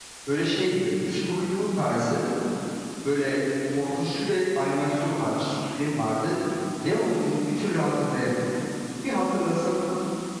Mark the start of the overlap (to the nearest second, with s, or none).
none